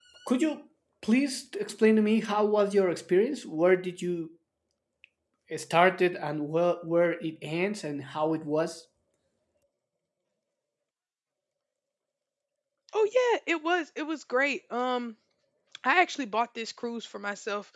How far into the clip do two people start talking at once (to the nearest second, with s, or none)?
none